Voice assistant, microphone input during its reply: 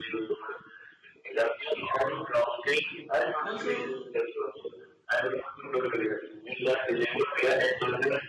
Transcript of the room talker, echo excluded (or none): Also,